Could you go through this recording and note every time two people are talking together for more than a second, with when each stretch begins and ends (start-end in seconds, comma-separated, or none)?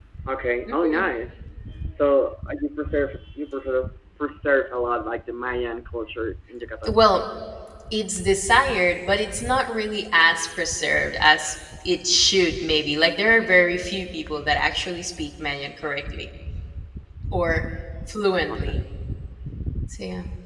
none